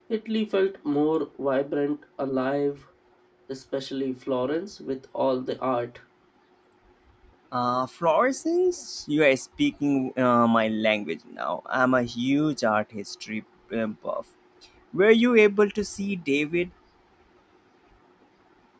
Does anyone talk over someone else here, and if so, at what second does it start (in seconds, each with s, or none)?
none